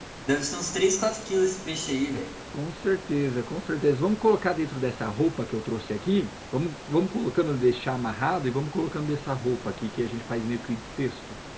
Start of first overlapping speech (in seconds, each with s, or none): none